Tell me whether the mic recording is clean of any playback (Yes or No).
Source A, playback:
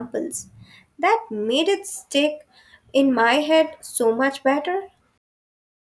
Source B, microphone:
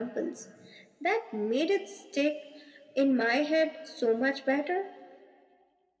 No